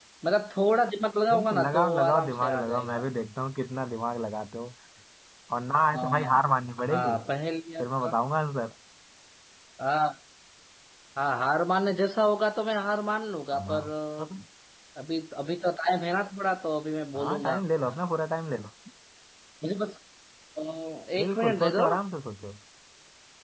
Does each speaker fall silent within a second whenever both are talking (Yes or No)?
No